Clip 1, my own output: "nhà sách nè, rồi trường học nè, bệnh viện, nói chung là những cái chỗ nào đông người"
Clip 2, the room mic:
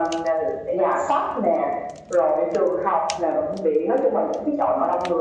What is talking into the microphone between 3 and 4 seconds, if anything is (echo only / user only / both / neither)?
echo only